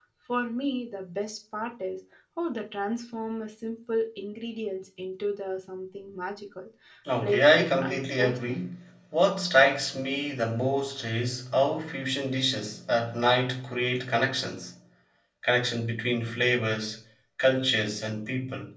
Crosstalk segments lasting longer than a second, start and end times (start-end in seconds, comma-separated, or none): 7.2-8.6